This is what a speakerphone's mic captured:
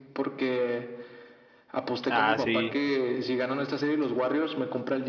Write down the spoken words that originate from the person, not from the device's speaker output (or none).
Ah, sí,